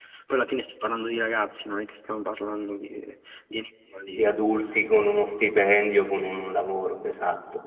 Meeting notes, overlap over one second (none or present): none